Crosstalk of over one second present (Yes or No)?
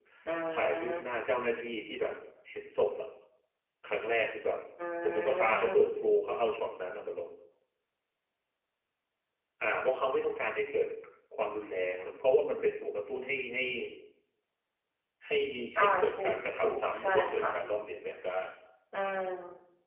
Yes